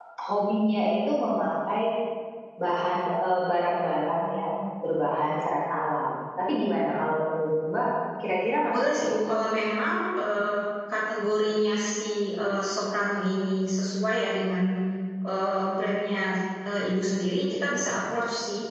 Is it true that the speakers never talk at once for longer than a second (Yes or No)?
Yes